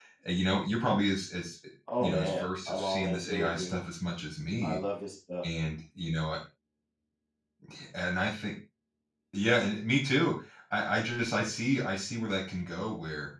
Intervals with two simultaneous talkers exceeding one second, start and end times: 2.0-3.8

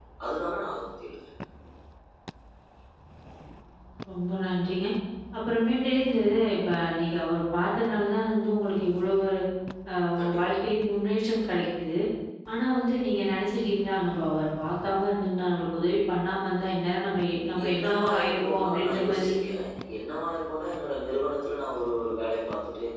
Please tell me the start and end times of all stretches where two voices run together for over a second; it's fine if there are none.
17.7-19.3

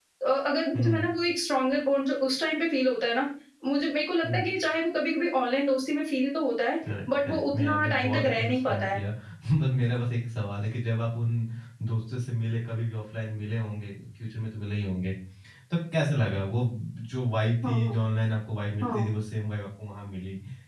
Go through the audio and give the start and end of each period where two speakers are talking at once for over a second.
7.2-9.0

